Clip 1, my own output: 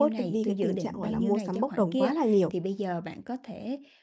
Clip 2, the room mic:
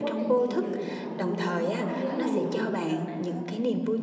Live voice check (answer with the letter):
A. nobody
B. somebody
B